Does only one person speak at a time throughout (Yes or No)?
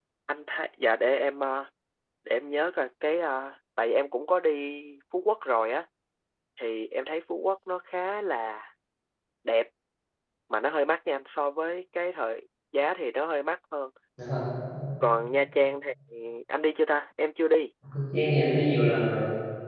Yes